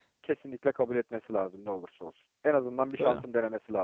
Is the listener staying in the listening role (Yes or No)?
Yes